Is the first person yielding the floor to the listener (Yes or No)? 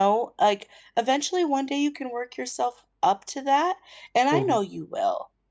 No